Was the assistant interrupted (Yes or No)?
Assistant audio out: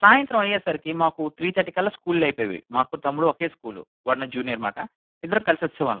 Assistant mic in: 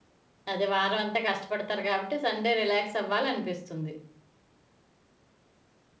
Yes